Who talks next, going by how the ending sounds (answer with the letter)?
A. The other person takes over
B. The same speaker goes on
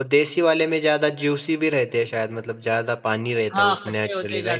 A